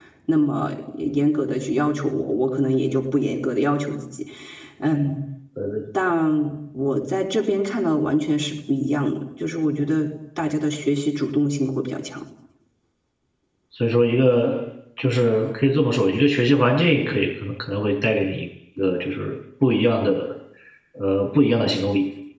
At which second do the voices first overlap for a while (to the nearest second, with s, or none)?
none